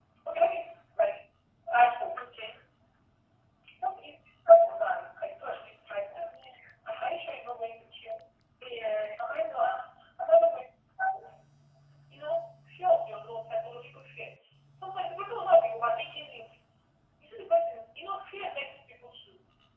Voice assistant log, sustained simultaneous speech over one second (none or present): none